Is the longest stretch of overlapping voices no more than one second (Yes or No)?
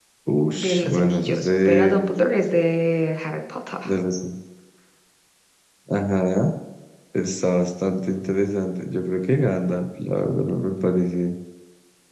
No